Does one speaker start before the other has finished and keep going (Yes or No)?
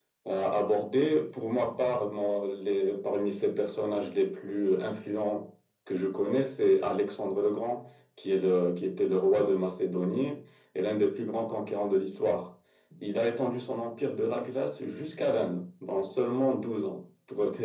No